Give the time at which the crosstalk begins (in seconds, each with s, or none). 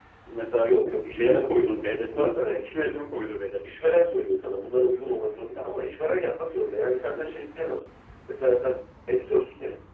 0.6 s